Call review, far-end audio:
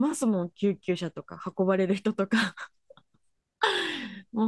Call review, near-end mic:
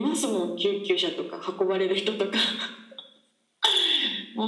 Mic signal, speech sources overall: echo only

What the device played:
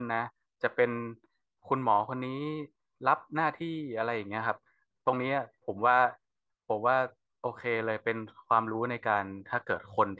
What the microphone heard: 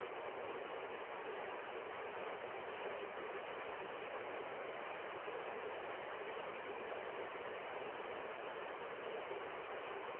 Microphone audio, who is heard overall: neither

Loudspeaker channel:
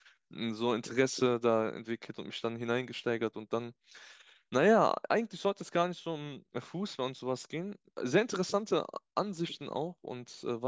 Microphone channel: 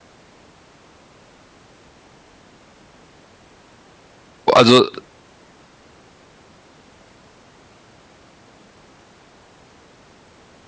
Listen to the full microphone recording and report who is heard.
user only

